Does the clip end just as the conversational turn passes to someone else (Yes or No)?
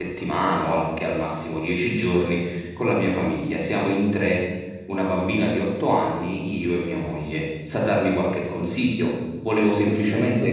No